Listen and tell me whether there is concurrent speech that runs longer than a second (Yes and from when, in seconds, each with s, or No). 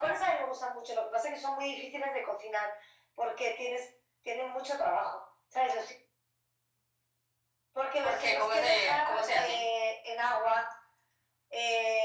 Yes, from 8.0 s